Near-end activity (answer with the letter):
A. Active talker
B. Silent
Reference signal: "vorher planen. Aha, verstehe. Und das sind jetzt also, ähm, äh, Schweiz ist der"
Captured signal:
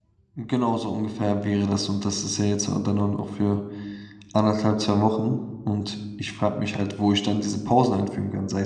A